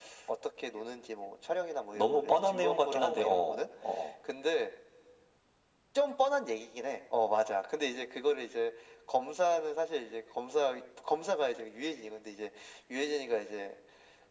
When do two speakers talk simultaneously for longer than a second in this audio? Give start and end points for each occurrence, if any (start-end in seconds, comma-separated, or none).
1.9-3.7